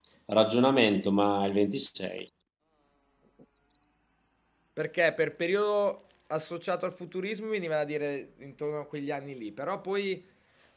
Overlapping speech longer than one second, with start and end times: none

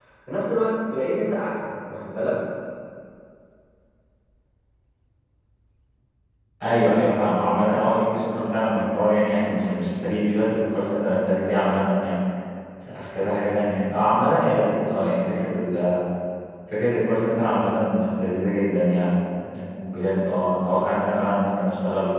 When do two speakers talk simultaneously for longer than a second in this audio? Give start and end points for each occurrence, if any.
none

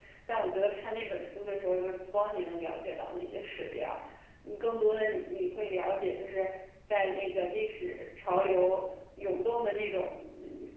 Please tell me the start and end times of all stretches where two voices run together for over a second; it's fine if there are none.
none

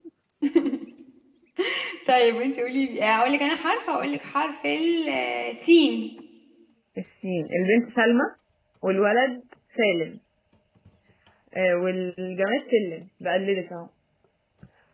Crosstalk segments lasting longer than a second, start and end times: none

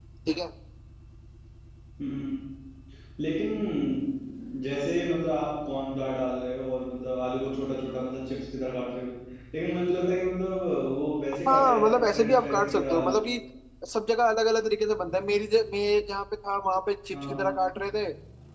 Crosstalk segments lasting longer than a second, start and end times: 11.5-13.2

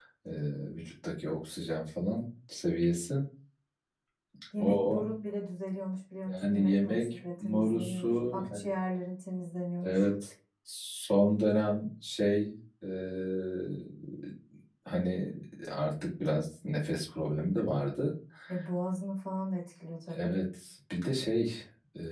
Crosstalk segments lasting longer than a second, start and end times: 6.2-8.6

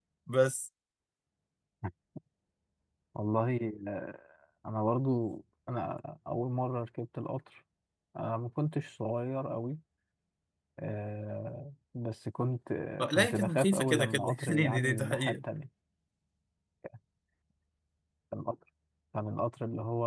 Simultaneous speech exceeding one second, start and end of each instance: 13.0-15.3

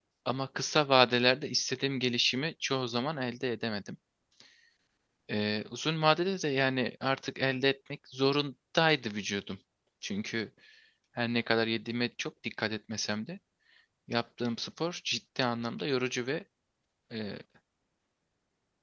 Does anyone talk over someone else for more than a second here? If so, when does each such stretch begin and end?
none

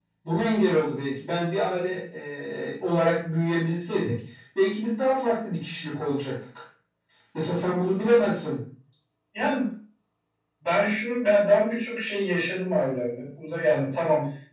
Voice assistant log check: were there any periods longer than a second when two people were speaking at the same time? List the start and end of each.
none

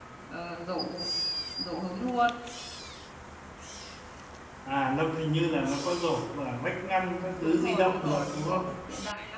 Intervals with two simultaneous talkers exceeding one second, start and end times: 7.4-8.6

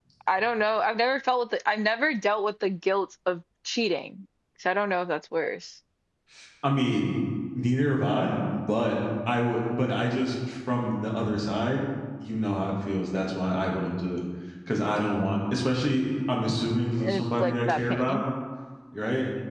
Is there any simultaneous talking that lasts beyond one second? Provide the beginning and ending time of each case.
17.0-18.2

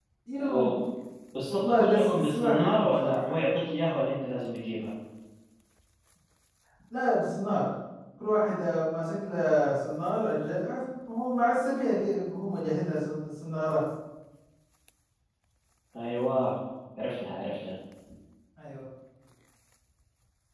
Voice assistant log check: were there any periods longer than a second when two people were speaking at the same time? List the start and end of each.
1.5-3.3

